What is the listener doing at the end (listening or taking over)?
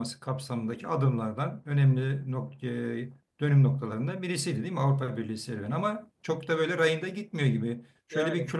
listening